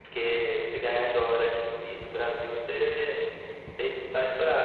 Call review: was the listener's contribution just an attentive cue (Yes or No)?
No